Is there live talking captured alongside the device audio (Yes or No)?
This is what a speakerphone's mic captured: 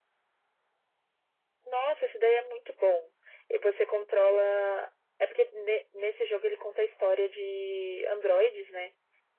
No